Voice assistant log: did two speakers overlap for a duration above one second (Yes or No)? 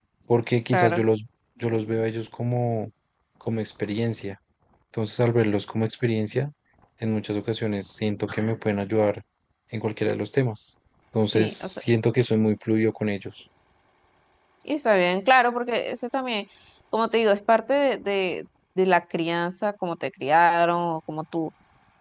No